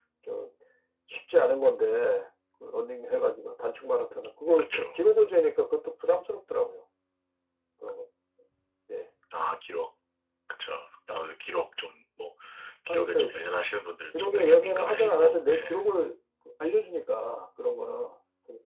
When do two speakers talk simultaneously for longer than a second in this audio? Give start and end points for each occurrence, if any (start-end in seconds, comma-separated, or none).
14.1-15.8